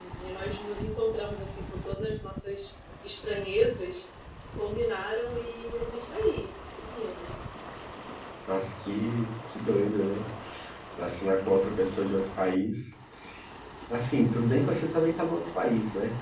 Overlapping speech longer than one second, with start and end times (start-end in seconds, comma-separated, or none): none